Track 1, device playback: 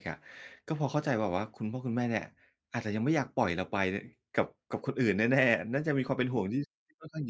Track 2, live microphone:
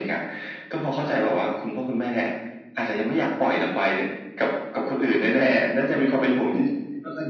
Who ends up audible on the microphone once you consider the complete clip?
echo only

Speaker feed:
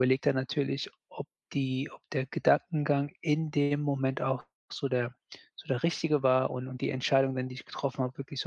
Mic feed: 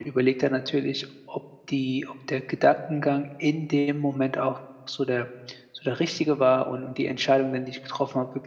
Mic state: echo only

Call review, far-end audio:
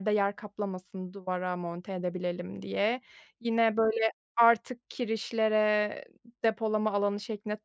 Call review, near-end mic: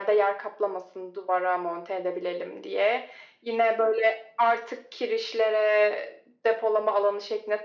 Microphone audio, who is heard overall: echo only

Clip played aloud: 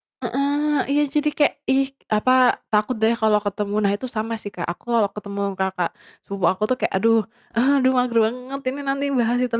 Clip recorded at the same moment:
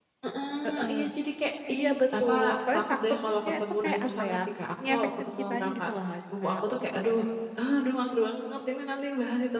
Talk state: both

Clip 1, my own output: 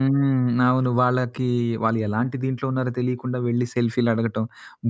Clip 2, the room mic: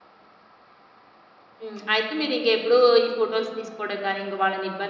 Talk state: user only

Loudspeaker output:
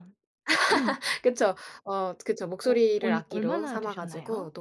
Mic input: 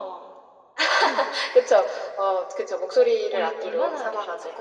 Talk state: echo only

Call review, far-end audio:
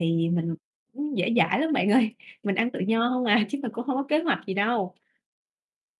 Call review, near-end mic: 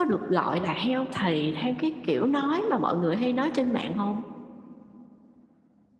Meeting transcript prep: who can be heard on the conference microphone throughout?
user only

